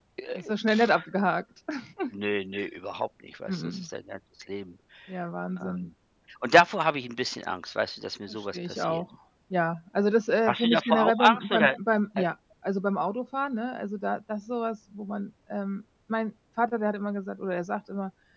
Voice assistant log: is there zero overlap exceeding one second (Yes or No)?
No